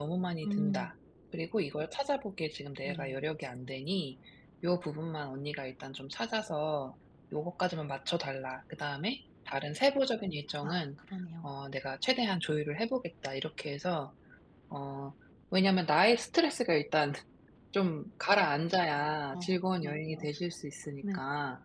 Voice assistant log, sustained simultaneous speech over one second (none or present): none